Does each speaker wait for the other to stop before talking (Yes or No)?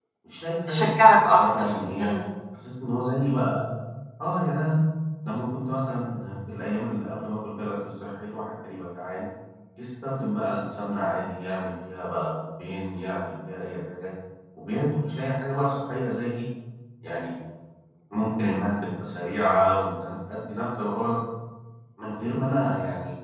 No